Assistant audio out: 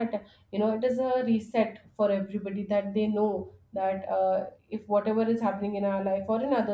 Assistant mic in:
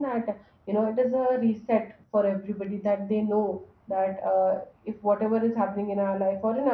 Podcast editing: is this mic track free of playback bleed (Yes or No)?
No